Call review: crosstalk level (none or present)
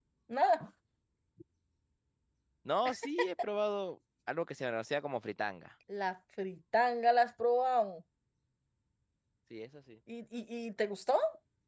none